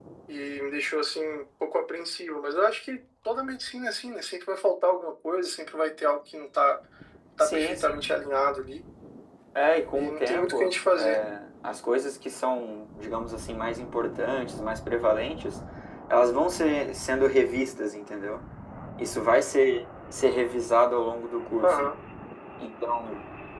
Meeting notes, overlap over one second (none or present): present